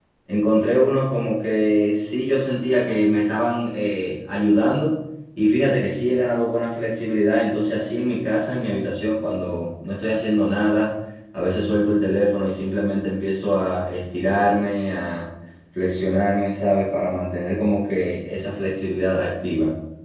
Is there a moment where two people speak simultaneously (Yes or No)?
No